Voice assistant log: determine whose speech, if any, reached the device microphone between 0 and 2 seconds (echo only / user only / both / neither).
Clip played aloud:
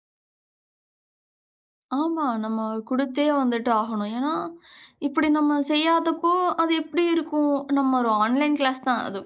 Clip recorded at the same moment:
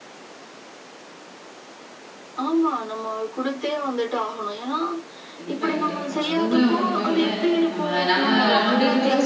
neither